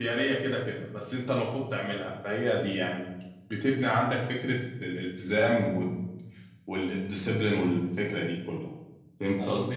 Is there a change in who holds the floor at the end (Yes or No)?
Yes